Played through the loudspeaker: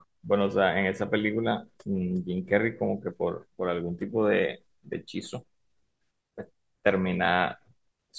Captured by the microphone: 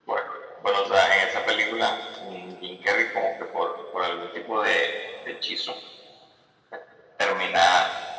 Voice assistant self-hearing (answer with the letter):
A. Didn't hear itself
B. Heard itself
B